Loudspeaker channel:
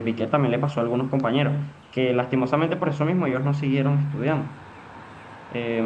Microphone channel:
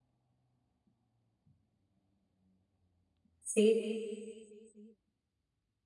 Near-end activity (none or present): present